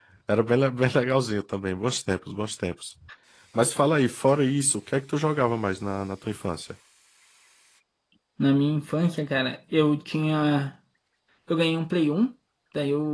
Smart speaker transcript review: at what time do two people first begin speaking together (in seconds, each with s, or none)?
none